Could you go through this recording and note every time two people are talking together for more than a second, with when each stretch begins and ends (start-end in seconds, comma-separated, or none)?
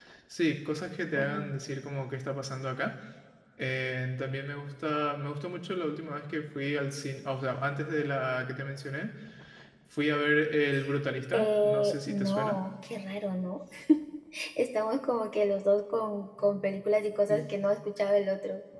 11.3-12.6